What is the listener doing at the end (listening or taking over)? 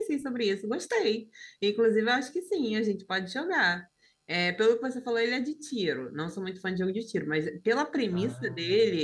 listening